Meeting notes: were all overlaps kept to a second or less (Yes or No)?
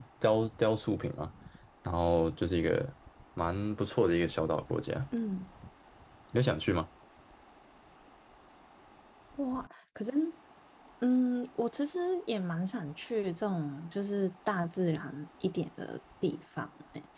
Yes